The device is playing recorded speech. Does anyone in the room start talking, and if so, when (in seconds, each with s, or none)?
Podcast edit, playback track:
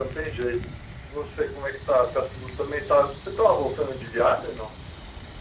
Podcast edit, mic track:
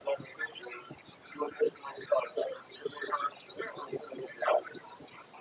none